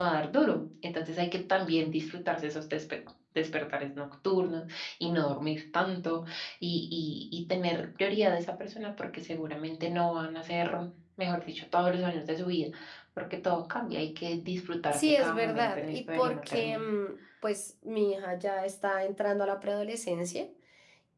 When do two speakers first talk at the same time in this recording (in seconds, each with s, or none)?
14.9 s